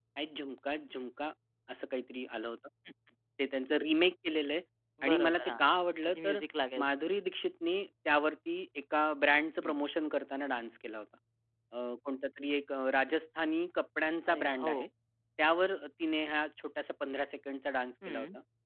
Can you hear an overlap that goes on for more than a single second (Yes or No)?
No